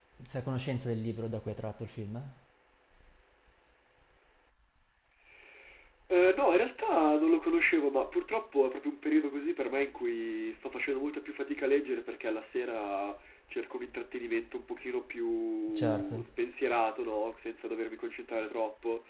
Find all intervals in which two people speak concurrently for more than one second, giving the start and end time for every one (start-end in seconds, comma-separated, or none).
none